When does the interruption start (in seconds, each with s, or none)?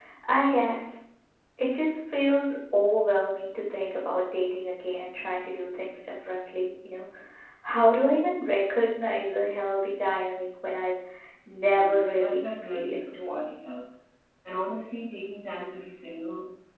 11.7 s